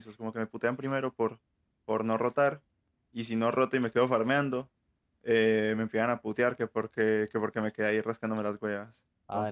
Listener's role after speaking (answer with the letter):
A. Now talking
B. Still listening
A